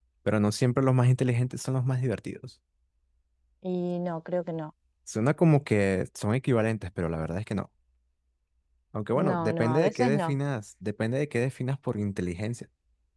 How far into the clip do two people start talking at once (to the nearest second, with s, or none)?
9 s